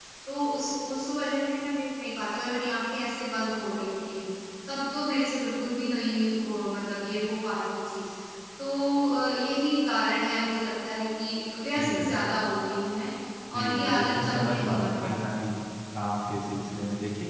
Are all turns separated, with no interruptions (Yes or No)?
No